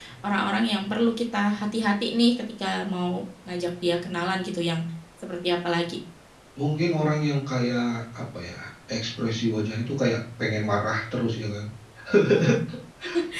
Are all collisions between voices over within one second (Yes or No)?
Yes